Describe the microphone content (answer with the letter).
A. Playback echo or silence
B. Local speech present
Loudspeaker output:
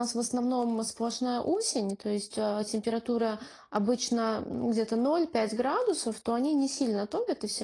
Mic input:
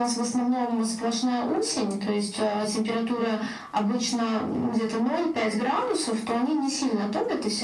A